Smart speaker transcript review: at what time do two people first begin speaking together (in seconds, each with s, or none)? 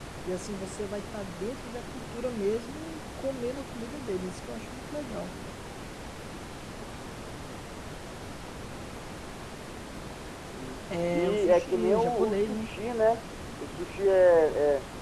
11.1 s